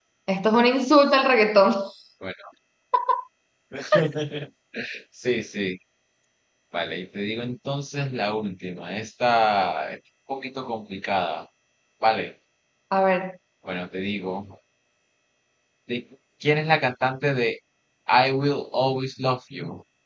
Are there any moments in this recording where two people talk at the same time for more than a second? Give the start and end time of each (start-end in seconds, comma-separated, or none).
none